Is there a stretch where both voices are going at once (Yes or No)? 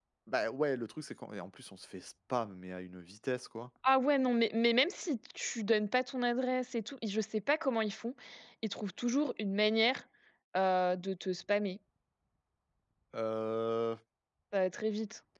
No